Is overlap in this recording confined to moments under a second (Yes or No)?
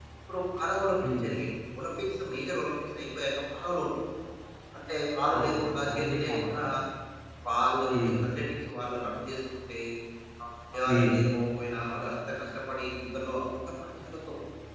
No